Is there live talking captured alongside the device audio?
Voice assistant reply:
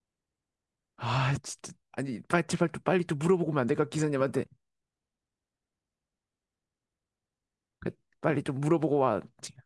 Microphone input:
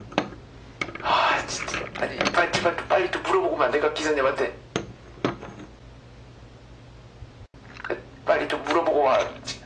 No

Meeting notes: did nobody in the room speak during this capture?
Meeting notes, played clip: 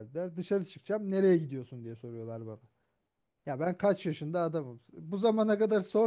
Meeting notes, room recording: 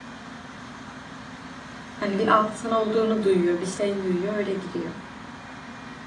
No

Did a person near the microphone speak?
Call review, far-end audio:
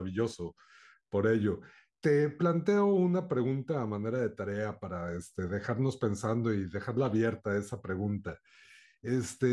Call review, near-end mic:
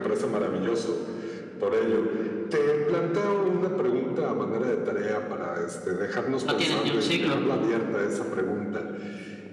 Yes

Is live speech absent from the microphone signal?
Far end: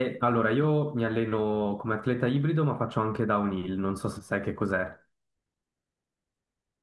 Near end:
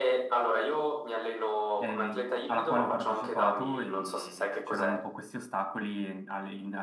No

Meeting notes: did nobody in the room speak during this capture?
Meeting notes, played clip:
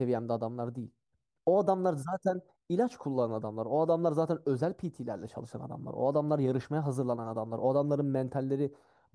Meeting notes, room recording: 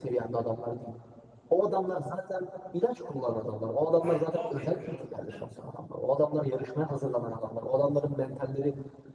No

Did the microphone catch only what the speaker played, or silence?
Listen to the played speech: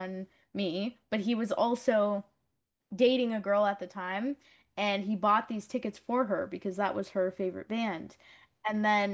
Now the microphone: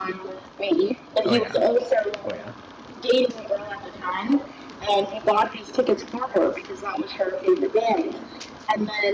No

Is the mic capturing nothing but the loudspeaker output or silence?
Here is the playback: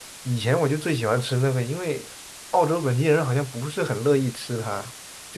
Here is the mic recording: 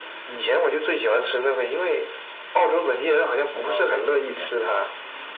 No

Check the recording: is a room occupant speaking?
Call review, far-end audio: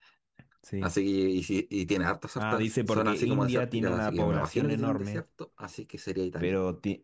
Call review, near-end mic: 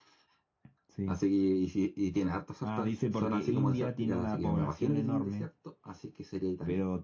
No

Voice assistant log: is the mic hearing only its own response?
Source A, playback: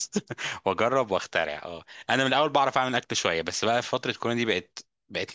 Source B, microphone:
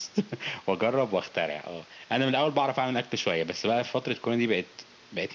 Yes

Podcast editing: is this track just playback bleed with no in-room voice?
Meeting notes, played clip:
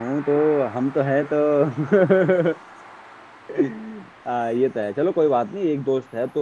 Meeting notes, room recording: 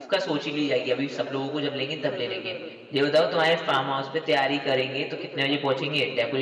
No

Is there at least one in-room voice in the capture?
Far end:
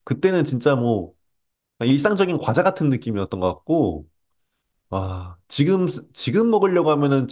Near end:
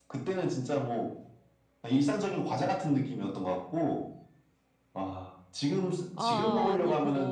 Yes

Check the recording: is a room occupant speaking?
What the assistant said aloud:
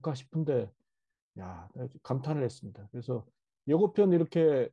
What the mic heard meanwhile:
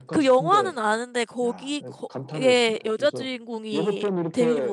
Yes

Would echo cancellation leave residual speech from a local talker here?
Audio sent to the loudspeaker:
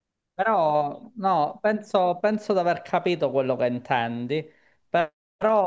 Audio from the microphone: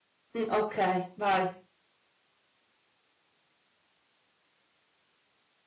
Yes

